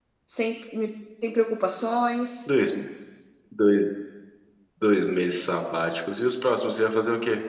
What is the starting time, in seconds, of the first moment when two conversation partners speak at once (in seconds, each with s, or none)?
none